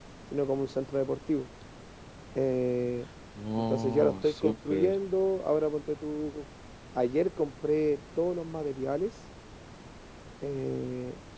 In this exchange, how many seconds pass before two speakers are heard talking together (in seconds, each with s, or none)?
3.7 s